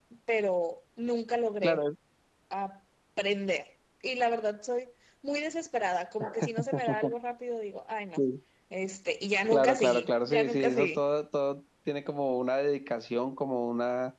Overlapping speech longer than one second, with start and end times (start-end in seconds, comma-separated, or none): 9.5-11.0